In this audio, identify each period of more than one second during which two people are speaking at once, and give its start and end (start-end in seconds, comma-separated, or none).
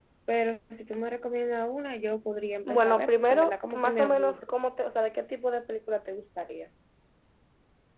2.6-4.5